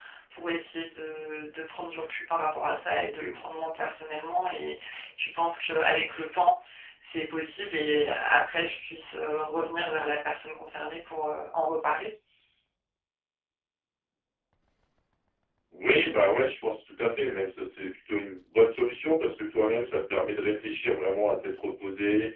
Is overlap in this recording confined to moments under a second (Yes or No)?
Yes